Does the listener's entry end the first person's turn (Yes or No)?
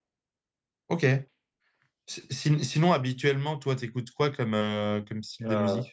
Yes